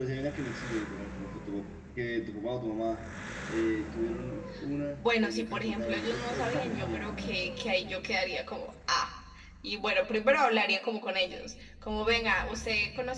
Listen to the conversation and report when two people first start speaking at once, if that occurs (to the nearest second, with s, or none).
5 s